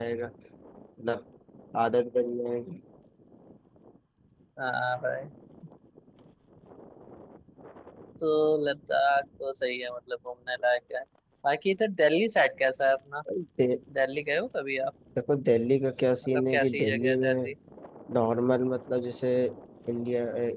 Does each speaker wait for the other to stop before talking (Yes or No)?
No